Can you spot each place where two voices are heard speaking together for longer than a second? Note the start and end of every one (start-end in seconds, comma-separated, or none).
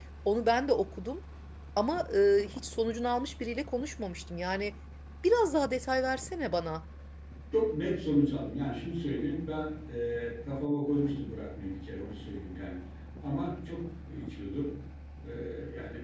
none